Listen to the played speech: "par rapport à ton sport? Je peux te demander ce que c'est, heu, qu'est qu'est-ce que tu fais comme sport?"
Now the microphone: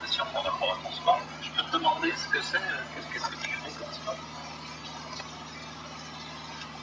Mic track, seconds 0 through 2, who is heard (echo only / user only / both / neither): echo only